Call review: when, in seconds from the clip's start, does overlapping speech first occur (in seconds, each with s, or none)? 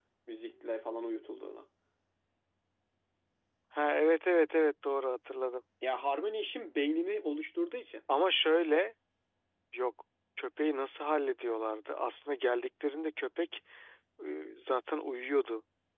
none